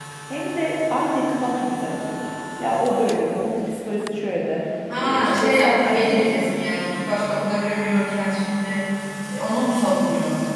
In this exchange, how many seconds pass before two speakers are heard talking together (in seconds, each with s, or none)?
5.0 s